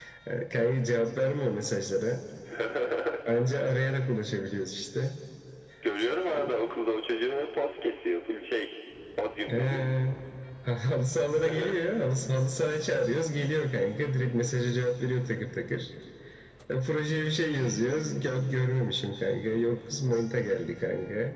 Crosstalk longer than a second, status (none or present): none